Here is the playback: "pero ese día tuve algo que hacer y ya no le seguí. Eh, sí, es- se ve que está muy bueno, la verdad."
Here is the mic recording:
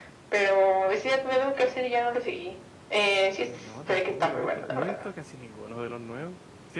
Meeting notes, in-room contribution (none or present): present